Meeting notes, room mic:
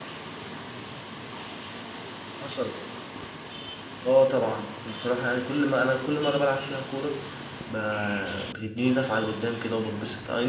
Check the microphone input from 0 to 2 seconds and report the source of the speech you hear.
neither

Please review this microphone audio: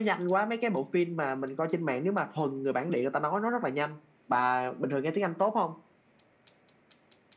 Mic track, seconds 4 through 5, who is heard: echo only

